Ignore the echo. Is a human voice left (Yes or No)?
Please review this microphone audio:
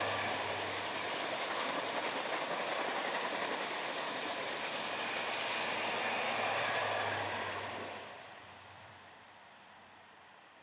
No